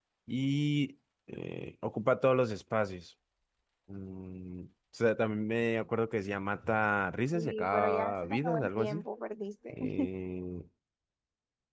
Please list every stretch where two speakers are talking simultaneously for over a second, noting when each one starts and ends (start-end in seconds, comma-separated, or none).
7.3-9.0